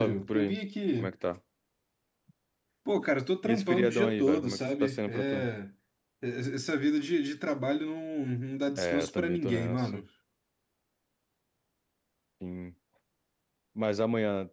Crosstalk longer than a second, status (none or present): present